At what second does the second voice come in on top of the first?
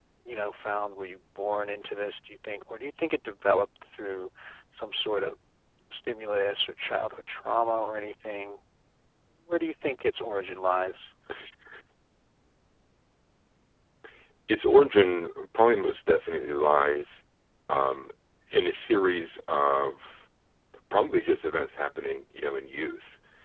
none

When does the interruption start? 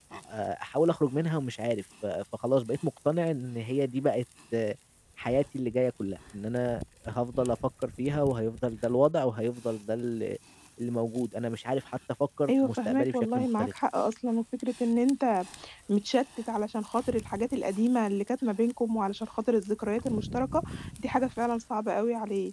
12 s

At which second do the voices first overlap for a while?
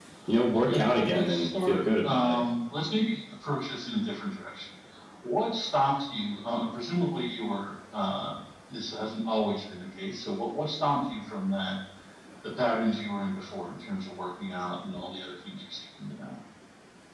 1 s

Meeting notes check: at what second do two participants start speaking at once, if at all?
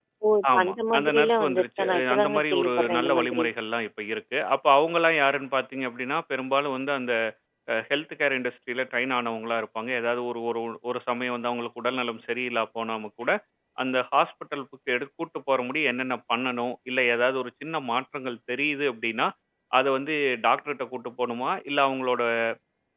1 s

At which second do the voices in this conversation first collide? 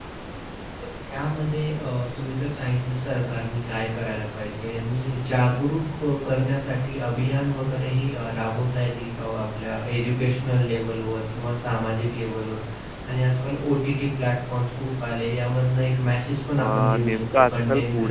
17 s

